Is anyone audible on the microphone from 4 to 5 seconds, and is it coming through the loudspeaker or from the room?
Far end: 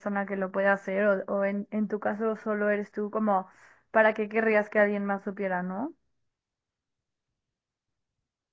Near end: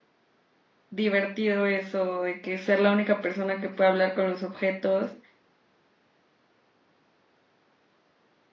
user only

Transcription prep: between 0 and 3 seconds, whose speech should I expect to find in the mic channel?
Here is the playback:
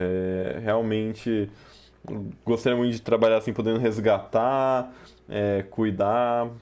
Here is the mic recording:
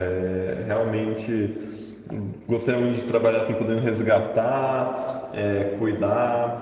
echo only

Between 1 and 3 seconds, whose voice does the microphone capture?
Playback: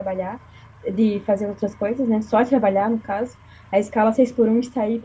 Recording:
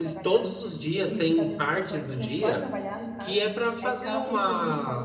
both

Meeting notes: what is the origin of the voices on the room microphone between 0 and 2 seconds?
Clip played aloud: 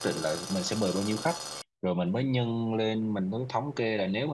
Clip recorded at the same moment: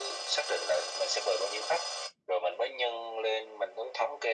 echo only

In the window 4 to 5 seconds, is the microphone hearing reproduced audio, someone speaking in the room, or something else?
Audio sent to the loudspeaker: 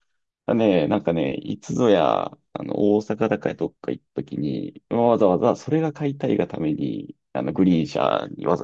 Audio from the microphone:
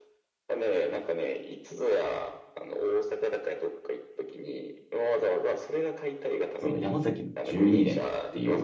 echo only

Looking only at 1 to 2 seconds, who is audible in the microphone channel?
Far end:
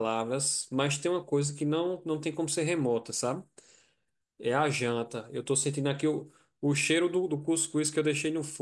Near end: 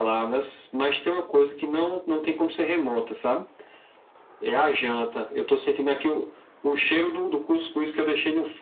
echo only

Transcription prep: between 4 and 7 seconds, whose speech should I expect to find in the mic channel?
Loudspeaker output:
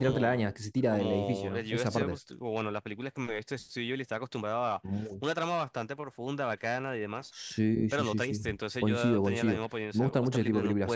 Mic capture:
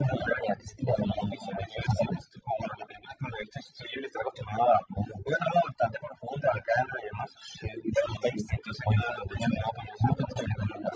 echo only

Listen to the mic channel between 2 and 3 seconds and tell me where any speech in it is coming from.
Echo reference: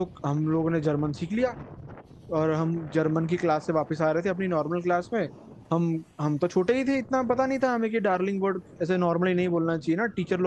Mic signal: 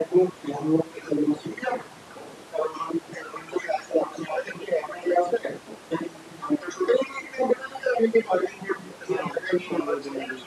echo only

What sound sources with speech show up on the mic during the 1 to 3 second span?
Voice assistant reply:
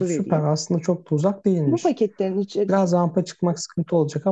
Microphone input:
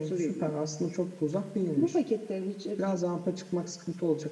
echo only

